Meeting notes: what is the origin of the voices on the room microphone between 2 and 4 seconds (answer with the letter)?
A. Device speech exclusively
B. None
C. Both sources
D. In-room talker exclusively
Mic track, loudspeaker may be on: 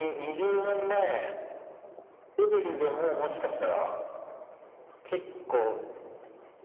A